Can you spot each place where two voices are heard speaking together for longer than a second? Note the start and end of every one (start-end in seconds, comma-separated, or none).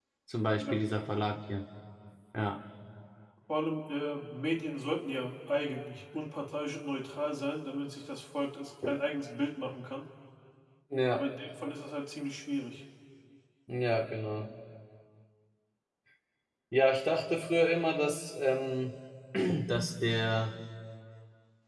none